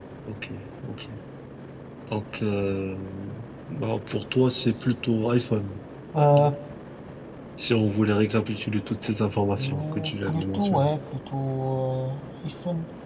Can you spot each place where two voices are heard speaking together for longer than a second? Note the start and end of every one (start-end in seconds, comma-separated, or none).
9.6-10.9